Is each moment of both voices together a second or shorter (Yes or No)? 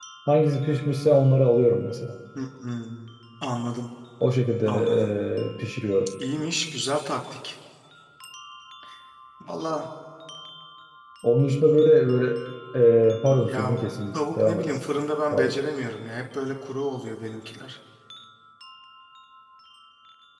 No